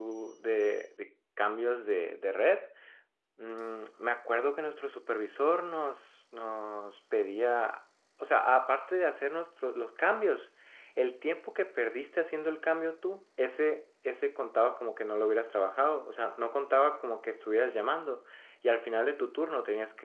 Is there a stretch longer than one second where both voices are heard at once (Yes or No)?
No